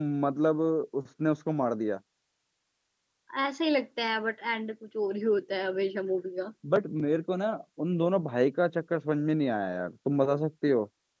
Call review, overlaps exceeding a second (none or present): none